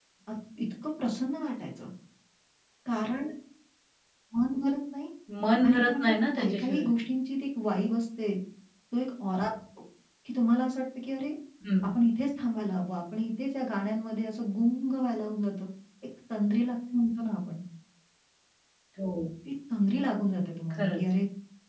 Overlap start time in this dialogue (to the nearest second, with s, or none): 6 s